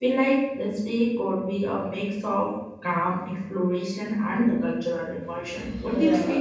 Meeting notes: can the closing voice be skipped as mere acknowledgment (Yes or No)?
No